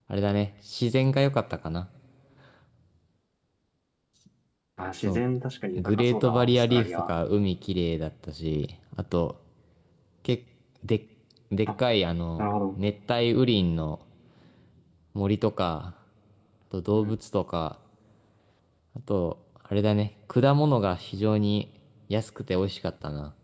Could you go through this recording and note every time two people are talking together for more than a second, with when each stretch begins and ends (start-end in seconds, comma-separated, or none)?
5.8-7.1